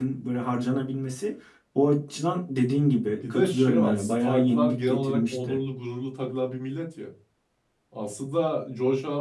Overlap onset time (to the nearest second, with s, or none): 3 s